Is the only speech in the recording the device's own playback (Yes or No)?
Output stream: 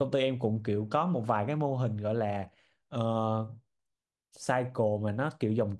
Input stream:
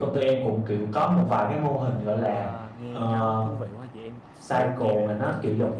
No